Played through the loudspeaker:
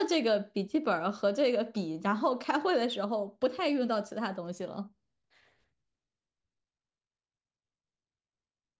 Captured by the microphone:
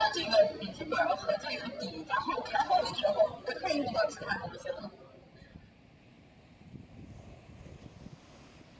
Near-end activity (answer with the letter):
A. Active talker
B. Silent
B